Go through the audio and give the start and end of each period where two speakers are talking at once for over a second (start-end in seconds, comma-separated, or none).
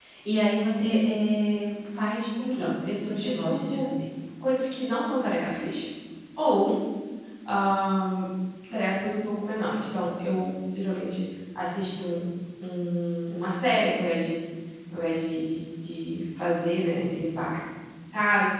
2.5-3.9